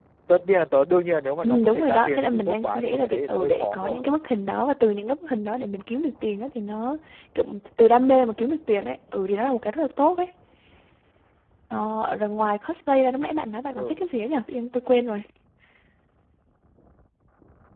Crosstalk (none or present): present